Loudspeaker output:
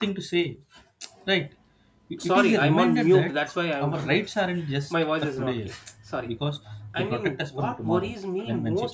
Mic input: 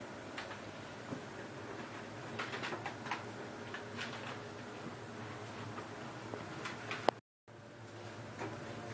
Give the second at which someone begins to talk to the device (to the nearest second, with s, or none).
none